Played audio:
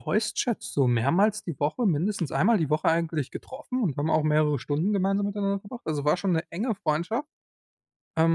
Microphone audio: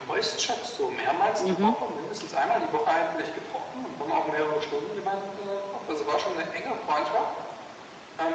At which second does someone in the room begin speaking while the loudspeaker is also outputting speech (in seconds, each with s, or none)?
1.4 s